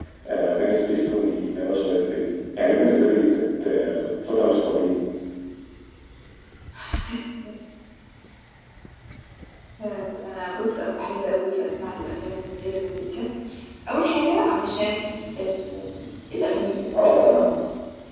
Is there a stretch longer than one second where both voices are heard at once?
No

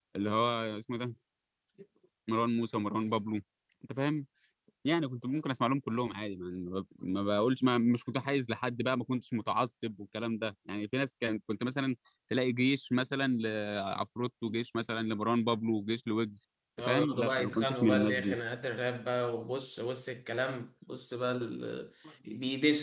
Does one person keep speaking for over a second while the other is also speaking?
Yes, from 16.8 s

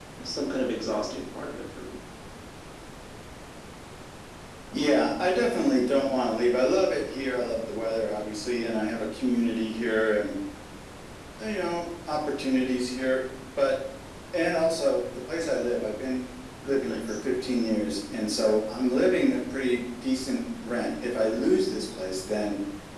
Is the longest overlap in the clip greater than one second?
No

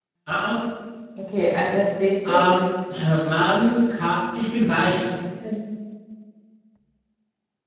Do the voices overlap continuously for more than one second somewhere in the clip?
No

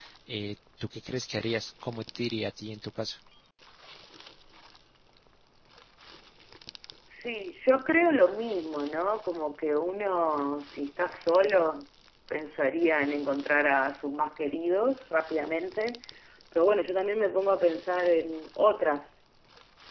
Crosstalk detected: No

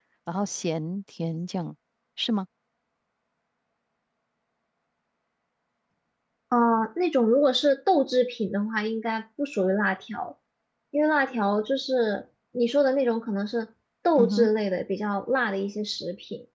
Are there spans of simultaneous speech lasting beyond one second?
No

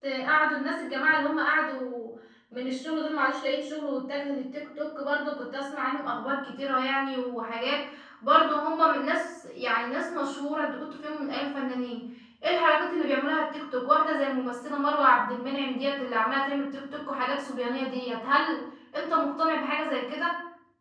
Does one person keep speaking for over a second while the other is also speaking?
No

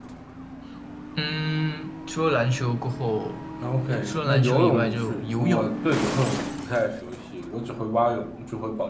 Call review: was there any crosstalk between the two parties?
Yes, from 3.9 s

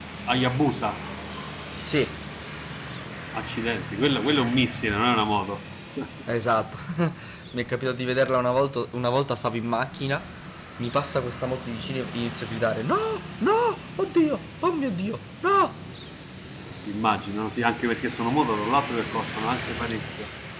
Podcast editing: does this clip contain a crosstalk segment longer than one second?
No

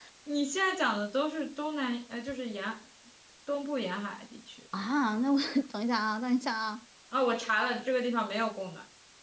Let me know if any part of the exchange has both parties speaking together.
No

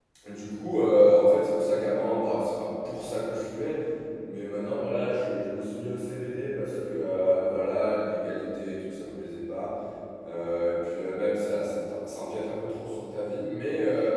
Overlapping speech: No

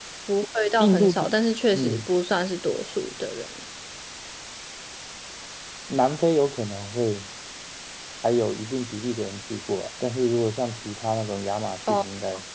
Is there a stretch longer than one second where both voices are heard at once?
No

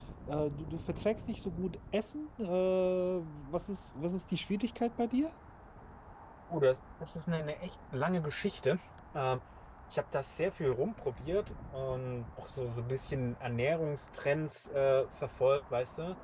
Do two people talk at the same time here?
No

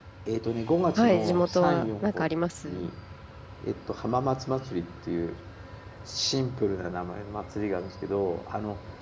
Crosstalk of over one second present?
Yes, from 1.0 s

